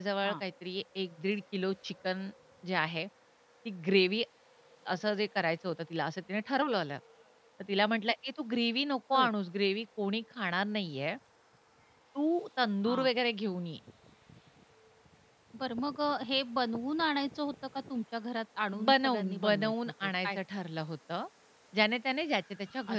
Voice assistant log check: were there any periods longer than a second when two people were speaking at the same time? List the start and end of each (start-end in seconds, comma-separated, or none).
18.9-20.4